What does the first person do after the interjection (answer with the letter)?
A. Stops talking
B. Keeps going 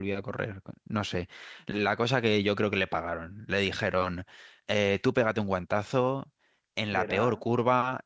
B